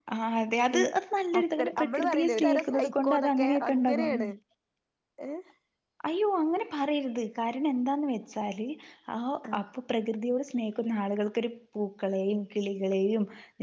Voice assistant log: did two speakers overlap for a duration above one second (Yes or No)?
Yes